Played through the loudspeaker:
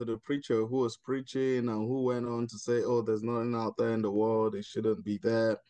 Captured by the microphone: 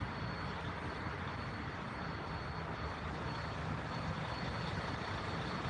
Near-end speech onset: none

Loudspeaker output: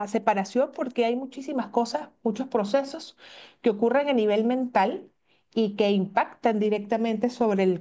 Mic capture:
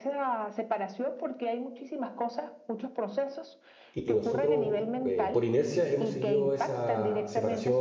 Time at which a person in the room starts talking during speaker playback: 4 s

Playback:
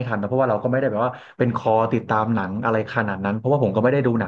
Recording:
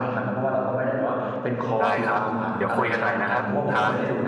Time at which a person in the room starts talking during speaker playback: 2 s

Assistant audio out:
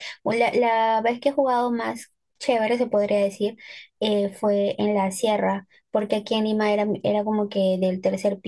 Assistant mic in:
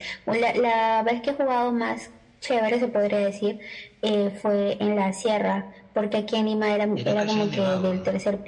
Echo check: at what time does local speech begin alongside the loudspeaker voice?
7 s

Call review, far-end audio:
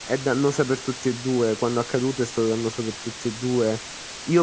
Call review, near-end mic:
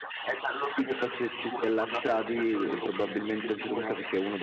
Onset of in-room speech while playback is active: 1 s

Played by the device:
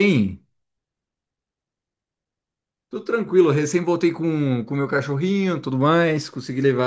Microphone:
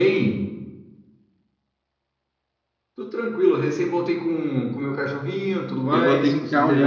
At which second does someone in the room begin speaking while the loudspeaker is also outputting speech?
6 s

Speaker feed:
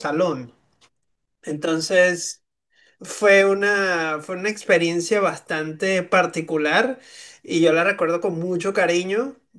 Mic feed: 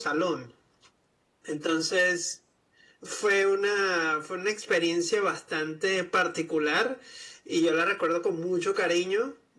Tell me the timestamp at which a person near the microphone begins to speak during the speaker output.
none

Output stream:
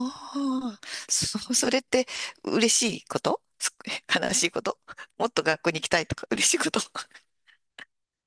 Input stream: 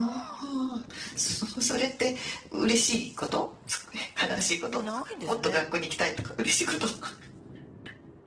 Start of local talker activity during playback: 4 s

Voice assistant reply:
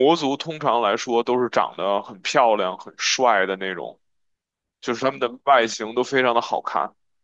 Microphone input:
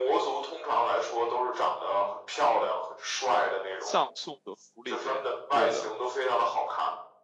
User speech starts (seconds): 4 s

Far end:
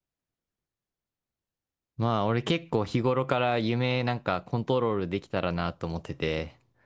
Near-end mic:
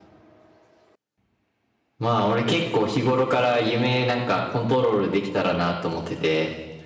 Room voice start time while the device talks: none

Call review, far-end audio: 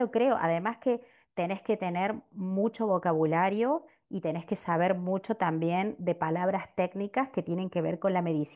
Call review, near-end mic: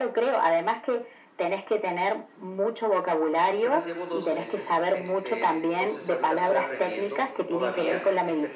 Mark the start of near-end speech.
3 s

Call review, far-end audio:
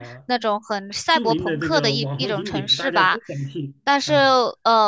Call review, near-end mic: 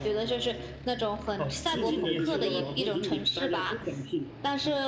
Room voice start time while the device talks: 1 s

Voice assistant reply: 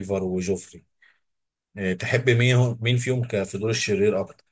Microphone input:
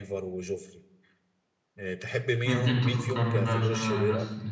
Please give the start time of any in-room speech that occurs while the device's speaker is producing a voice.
2 s

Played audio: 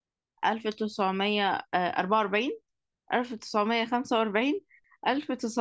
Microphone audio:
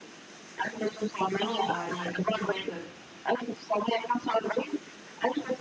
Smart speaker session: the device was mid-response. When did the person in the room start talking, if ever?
1 s

